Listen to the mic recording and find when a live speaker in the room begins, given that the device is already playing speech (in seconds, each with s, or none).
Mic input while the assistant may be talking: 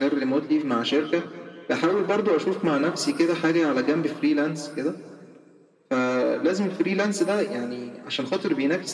none